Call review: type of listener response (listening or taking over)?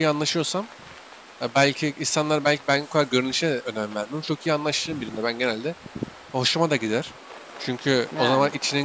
listening